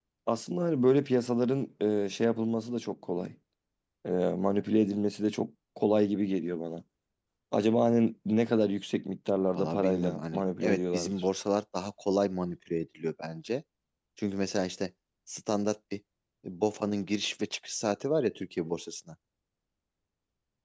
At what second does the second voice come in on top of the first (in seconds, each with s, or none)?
9.6 s